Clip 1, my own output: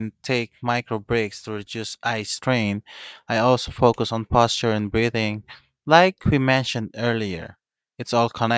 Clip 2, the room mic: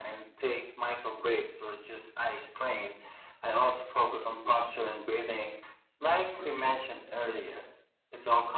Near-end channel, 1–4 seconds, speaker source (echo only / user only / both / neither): echo only